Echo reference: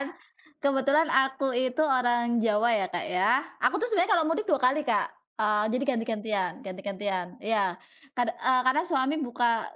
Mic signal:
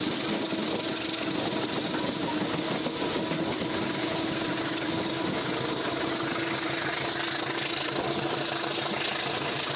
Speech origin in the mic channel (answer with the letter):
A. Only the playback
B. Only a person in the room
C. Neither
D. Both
C